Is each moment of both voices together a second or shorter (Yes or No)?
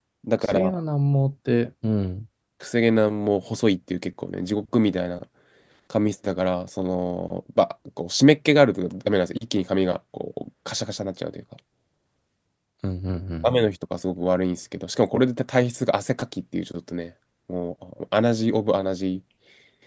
Yes